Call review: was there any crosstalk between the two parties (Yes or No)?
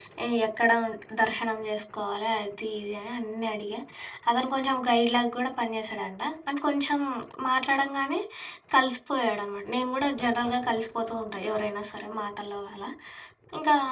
No